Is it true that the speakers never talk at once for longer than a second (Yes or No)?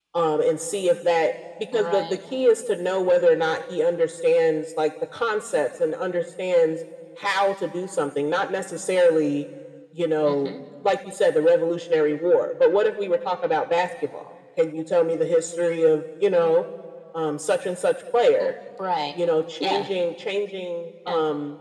Yes